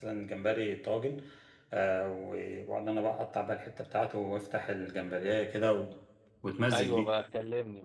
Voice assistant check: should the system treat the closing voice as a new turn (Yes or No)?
Yes